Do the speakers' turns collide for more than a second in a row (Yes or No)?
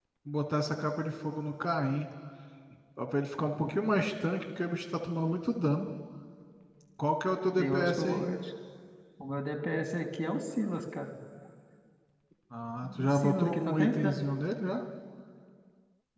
Yes